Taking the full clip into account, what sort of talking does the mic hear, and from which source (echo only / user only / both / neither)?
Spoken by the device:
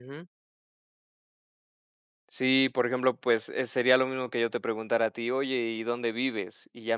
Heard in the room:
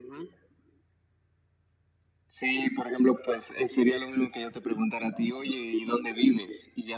echo only